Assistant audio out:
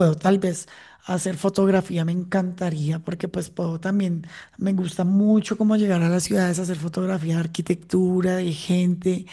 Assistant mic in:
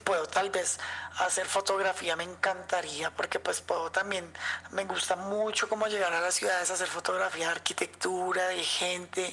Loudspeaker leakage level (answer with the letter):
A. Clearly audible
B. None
A